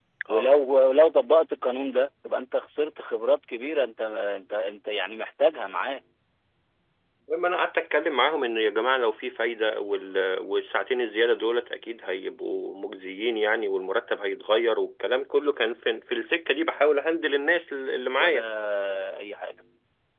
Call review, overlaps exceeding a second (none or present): none